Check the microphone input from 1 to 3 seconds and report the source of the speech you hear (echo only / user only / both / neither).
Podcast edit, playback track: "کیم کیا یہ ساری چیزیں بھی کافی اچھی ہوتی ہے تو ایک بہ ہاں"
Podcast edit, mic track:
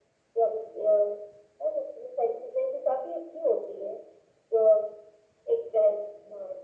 echo only